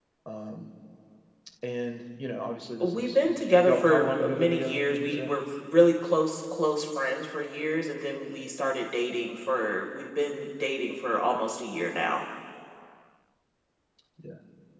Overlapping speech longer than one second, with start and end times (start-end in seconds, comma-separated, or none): 2.8-5.3